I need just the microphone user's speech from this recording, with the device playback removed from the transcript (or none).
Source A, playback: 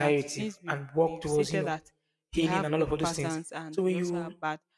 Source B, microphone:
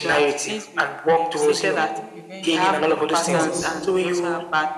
then you take a prevention drugs,